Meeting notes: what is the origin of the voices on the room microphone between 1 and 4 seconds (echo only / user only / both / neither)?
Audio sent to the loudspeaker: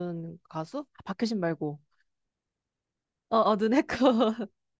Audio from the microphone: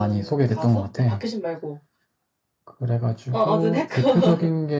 both